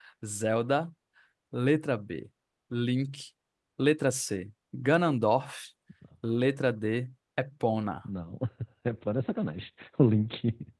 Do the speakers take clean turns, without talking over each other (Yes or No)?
Yes